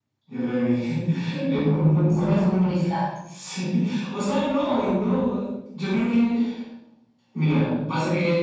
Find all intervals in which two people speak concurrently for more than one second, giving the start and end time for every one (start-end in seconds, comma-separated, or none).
1.5-2.7